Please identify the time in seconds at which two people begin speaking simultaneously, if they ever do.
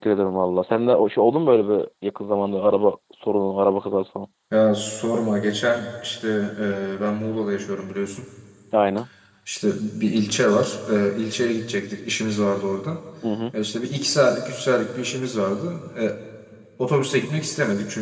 none

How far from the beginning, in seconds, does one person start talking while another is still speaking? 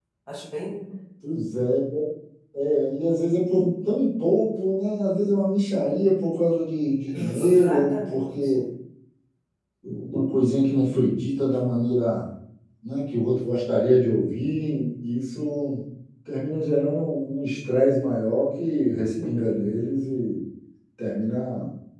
7 s

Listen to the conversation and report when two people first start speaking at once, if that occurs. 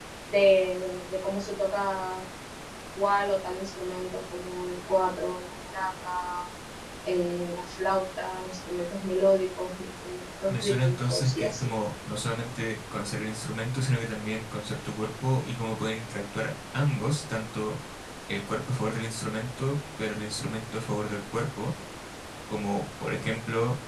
10 s

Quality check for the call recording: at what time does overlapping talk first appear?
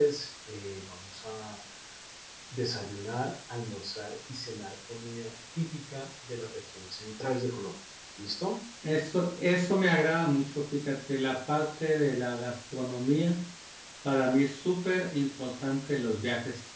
none

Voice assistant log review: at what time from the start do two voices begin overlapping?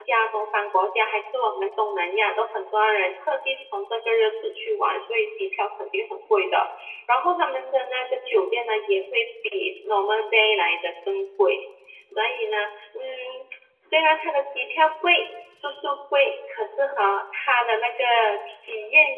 none

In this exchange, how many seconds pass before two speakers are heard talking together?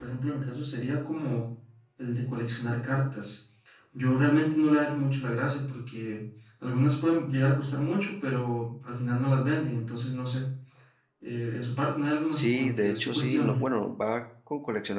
12 s

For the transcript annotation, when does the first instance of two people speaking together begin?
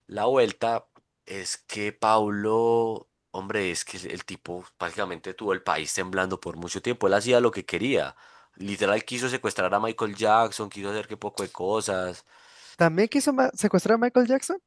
none

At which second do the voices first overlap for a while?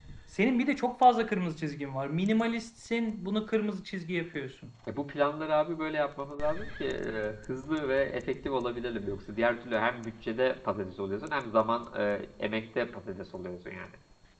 none

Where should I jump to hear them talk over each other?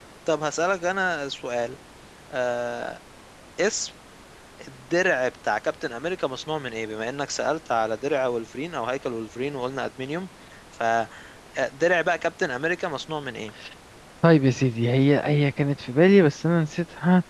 none

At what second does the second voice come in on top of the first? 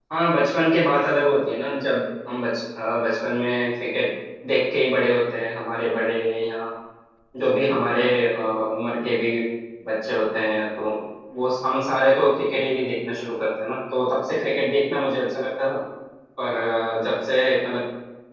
none

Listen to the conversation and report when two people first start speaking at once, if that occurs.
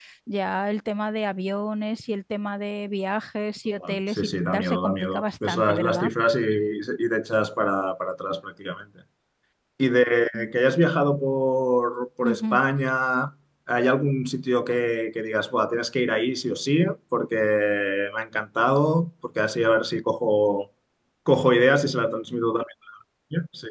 4 s

